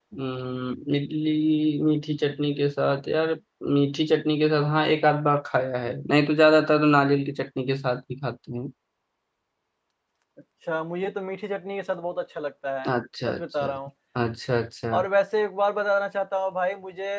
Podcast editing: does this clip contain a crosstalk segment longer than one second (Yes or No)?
No